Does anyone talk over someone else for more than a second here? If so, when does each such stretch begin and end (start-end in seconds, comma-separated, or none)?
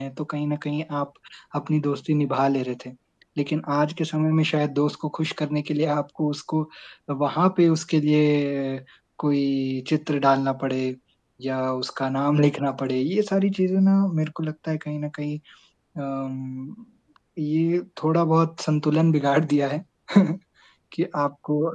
none